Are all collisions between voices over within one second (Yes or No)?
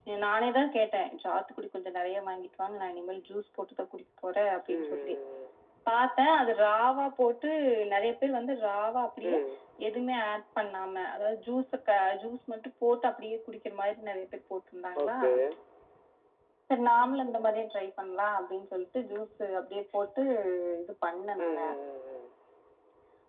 Yes